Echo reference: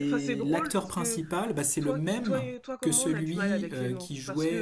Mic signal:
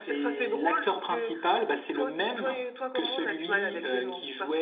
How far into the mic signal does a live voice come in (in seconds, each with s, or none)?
none